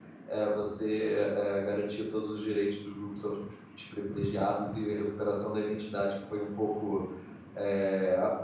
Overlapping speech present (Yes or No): No